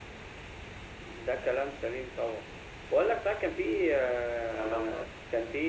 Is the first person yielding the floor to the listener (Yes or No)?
No